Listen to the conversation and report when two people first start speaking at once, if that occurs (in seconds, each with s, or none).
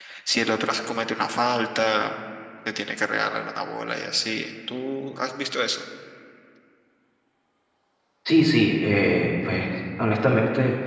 none